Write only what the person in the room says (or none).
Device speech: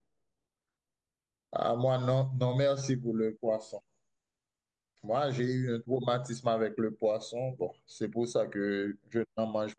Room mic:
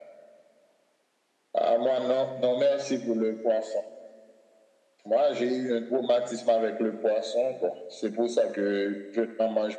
none